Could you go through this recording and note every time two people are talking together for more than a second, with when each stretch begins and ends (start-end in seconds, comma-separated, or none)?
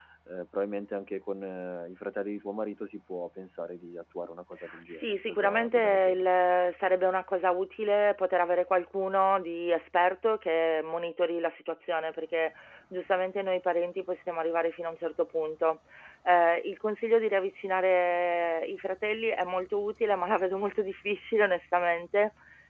4.9-6.3